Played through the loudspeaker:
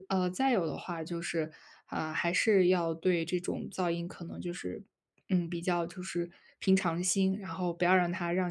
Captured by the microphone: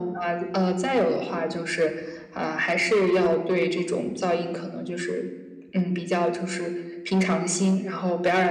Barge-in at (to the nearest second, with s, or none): none